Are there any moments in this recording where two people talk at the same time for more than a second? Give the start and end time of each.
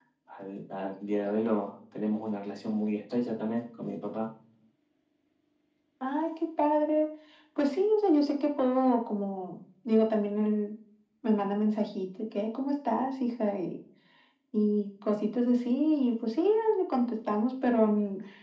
none

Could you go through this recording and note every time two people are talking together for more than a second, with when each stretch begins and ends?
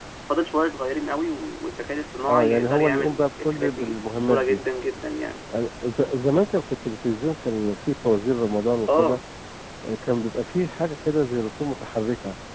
2.3-4.6

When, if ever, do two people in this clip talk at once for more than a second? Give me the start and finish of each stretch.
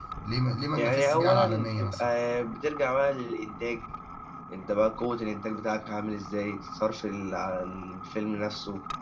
0.8-2.1

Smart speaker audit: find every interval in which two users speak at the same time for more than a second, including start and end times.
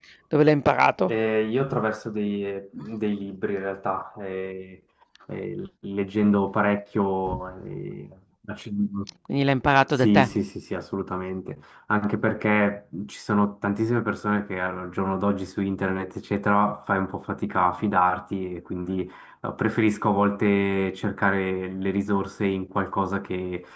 none

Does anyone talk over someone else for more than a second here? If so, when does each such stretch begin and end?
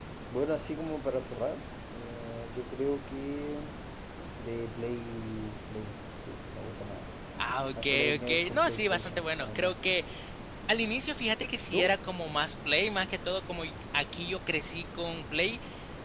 7.7-9.7

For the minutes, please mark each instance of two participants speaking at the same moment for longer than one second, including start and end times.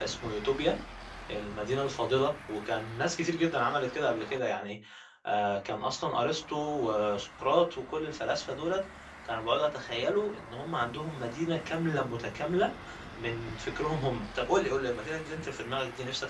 none

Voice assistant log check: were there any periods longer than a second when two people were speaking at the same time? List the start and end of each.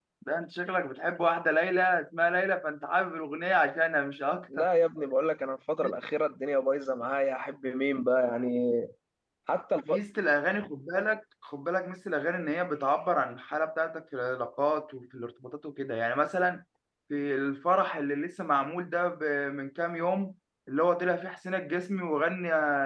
none

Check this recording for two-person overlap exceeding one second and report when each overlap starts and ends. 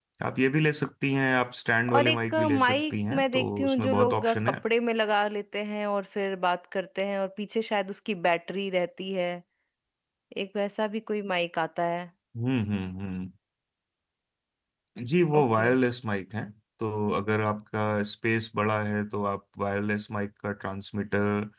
1.9-4.6

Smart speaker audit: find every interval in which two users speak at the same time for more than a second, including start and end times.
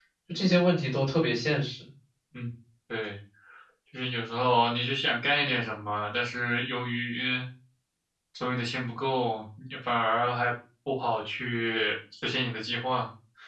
none

